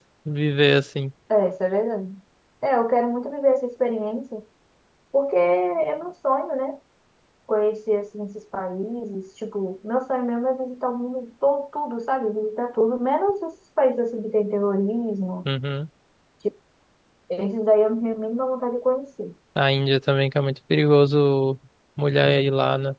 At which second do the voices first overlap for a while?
none

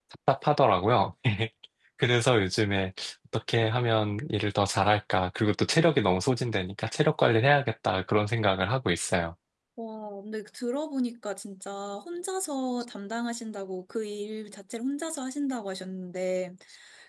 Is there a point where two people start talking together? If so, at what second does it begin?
none

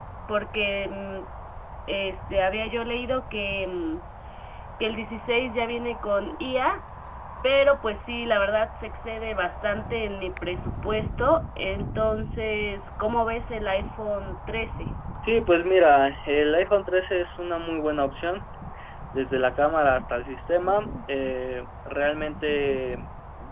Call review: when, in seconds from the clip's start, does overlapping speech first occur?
none

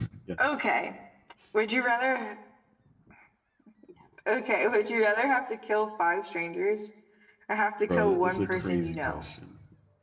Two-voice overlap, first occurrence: 7.9 s

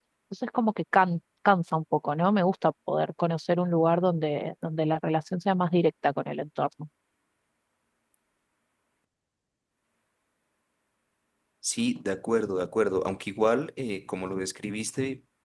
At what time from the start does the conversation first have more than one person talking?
none

